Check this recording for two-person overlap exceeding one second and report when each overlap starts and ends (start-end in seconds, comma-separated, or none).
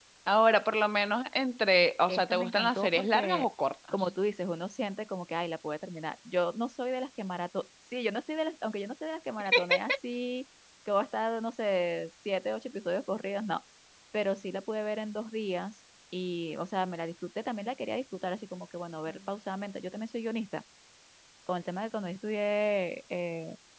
2.1-3.5